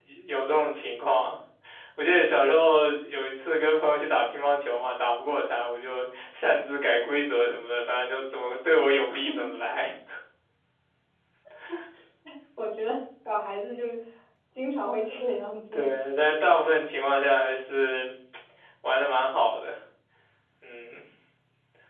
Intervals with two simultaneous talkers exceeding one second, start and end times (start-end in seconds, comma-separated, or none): none